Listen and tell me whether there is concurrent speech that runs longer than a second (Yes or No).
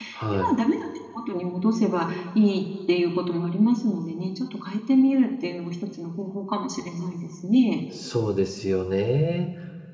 No